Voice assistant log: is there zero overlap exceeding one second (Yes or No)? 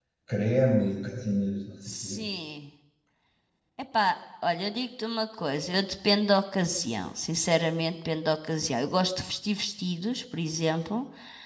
Yes